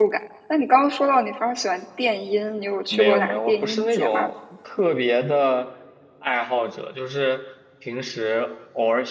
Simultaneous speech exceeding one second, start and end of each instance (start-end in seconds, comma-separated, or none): 2.9-4.3